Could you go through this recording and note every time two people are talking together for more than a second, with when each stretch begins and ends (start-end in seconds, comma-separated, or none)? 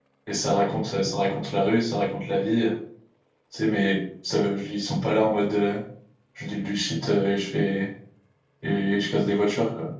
none